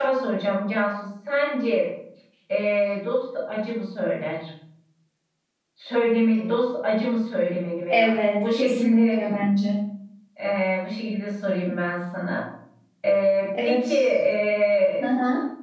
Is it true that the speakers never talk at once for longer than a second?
No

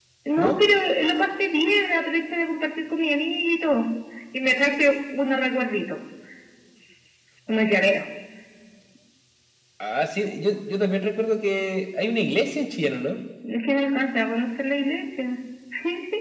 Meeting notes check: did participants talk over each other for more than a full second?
No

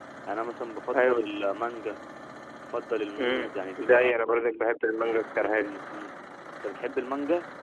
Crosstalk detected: Yes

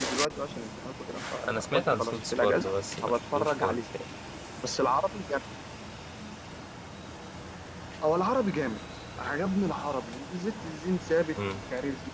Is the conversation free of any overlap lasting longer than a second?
No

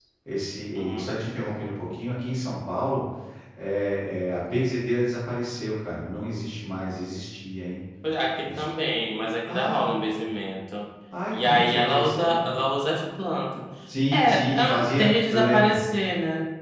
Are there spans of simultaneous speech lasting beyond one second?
Yes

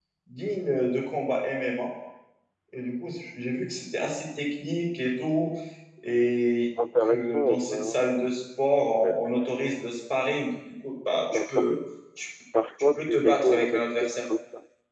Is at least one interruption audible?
Yes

